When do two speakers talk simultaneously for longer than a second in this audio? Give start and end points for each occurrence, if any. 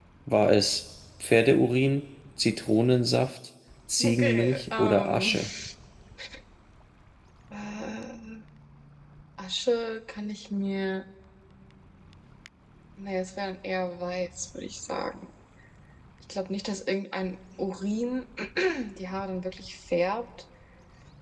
4.0-5.3

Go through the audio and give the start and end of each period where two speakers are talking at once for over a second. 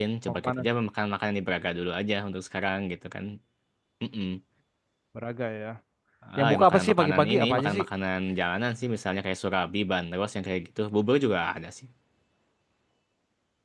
6.4-7.8

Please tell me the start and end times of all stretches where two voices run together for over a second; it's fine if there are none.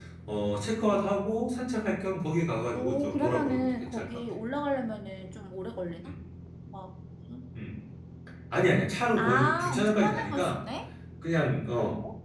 2.8-4.1, 9.2-10.6

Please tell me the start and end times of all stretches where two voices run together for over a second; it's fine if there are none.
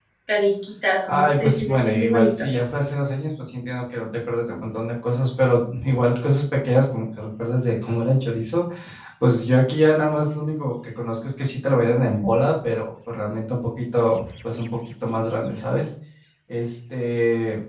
1.1-2.5

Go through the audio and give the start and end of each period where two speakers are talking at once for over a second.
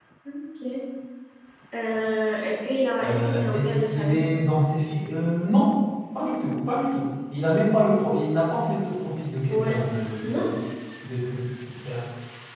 3.0-4.2

